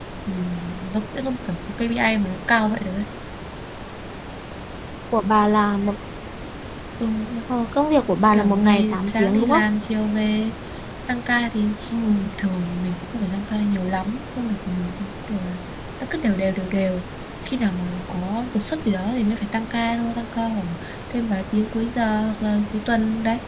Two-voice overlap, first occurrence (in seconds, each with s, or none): 8.3 s